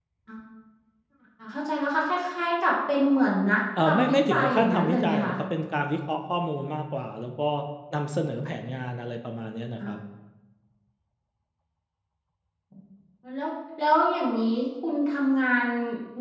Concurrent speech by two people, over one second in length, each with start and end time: 3.9-5.3

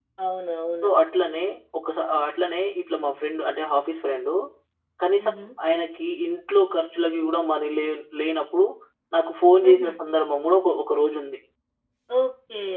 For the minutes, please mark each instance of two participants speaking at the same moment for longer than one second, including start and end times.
none

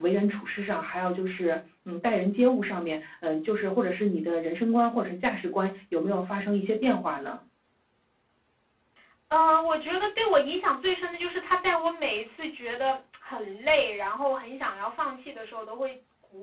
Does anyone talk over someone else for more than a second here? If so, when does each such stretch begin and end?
none

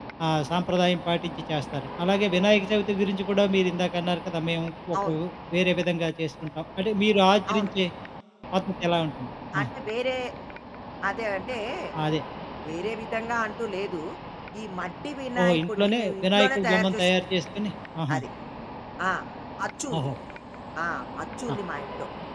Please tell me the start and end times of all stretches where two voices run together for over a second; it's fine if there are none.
15.4-17.1

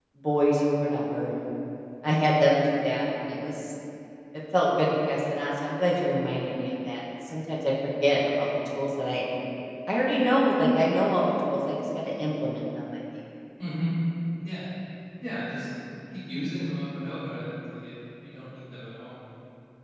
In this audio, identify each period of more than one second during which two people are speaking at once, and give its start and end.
none

